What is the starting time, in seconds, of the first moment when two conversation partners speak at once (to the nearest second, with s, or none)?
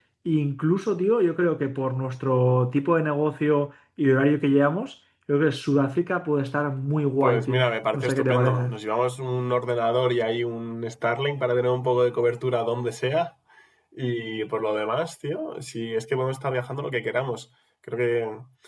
7 s